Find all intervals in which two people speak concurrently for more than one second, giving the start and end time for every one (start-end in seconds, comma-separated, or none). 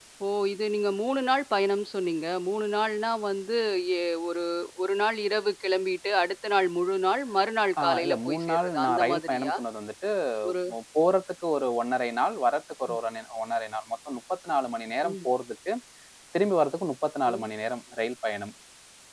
7.8-9.5